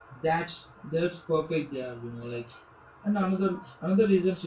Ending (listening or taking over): listening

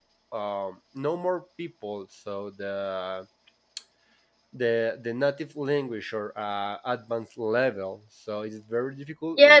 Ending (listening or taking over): taking over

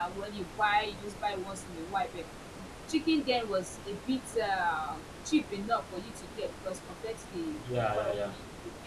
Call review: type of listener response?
listening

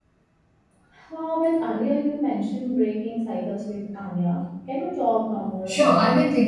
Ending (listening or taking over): taking over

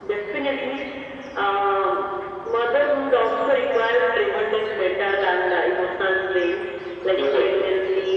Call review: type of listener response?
listening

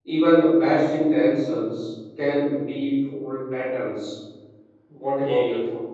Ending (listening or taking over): taking over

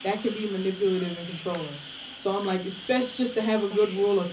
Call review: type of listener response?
listening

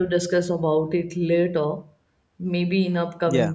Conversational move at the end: listening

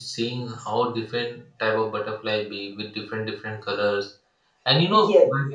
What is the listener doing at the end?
listening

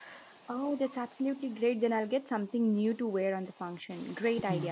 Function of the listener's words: taking over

